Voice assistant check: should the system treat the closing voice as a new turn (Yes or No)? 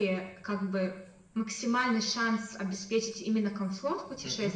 No